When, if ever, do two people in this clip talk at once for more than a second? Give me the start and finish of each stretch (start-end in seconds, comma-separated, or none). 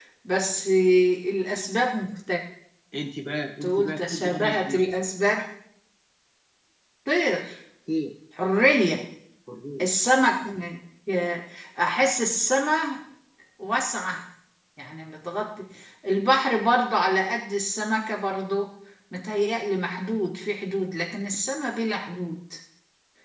3.6-4.9